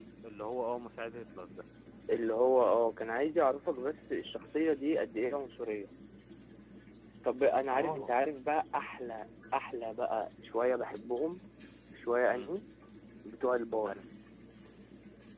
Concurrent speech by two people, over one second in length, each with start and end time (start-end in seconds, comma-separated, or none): none